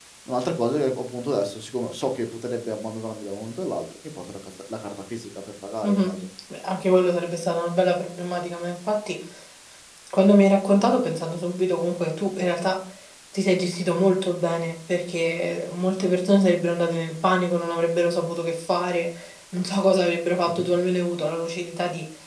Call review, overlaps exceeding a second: none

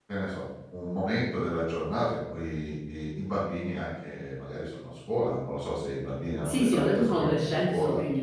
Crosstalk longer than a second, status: present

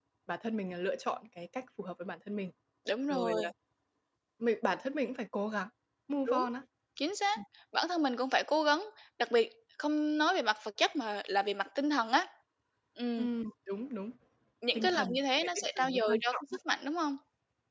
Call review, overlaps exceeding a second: present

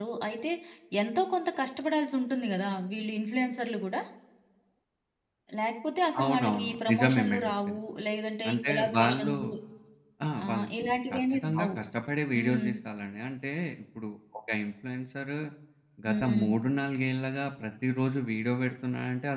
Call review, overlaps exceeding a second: present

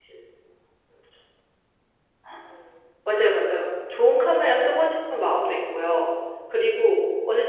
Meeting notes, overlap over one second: none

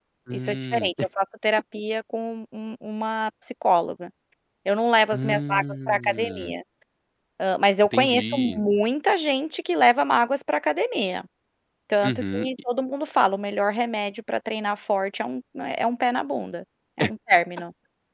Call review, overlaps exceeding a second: present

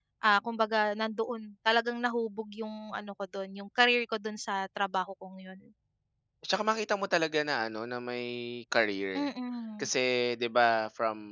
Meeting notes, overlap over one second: none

